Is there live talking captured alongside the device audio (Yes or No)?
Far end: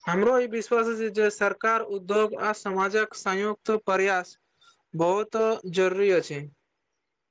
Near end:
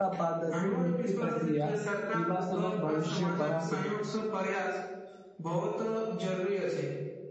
Yes